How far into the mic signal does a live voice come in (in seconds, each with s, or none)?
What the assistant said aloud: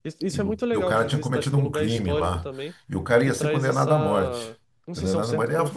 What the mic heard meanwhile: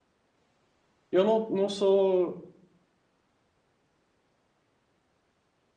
1.1 s